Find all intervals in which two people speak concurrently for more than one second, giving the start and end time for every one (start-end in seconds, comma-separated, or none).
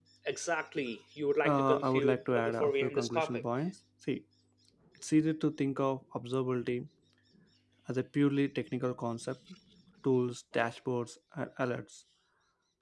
1.4-3.4